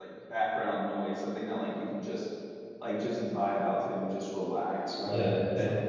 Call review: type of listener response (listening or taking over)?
taking over